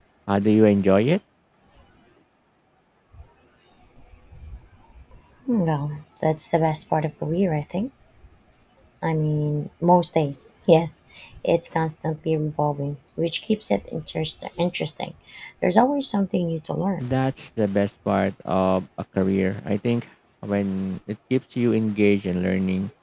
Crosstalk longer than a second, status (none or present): none